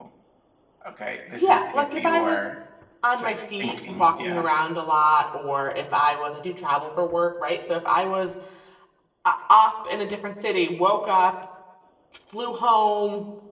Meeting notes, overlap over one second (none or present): present